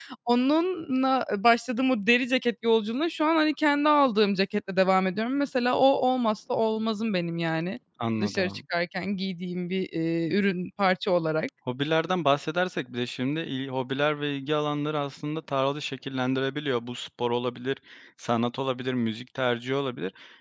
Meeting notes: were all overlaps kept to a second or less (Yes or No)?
Yes